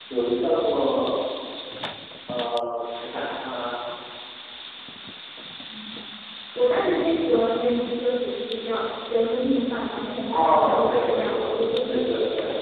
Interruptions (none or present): present